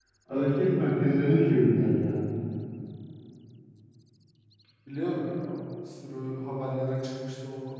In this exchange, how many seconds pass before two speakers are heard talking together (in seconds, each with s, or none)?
none